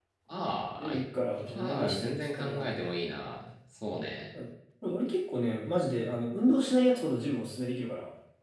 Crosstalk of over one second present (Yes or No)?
Yes